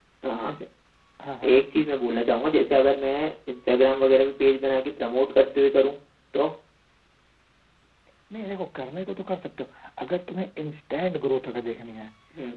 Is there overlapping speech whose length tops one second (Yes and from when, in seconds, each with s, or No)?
No